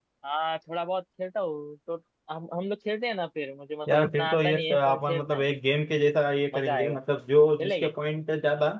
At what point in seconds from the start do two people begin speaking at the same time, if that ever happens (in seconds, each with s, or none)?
3.9 s